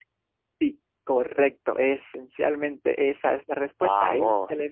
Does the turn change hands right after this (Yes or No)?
No